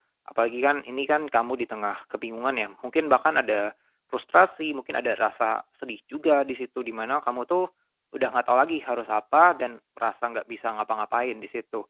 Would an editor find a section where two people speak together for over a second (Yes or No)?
No